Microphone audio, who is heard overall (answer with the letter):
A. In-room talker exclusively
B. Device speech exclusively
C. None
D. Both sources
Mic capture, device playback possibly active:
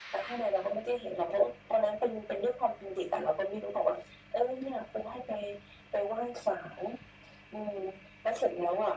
B